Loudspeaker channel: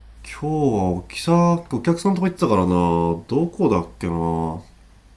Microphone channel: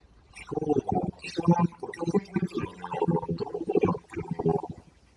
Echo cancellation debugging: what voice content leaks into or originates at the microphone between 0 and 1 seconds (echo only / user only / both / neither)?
echo only